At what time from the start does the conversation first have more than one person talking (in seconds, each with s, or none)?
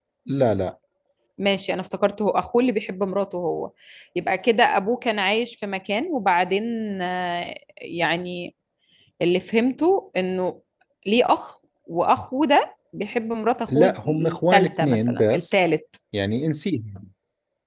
13.7 s